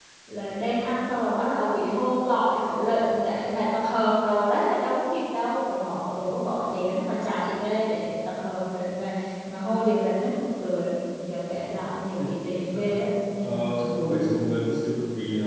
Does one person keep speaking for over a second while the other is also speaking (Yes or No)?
No